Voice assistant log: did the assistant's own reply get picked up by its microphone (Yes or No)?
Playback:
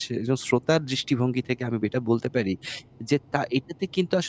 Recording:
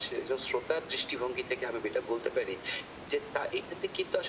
Yes